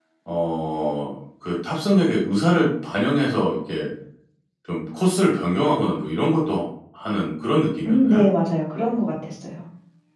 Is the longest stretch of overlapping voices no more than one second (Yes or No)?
Yes